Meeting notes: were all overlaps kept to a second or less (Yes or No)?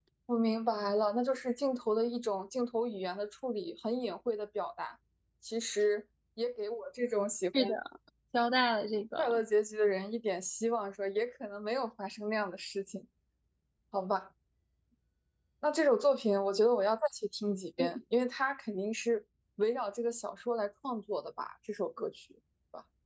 Yes